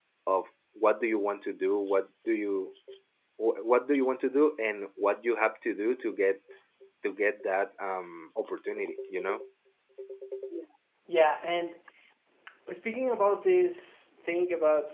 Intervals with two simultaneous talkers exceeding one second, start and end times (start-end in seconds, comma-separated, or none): none